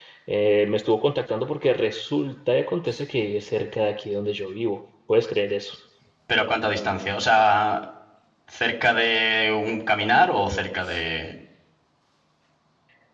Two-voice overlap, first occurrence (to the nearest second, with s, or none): none